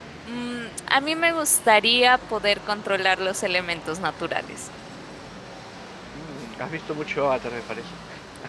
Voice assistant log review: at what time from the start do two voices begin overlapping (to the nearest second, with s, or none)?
none